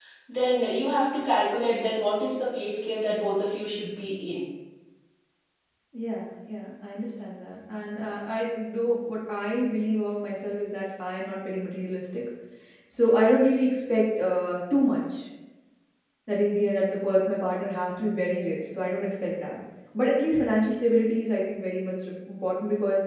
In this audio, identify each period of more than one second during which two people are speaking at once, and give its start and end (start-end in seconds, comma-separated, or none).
none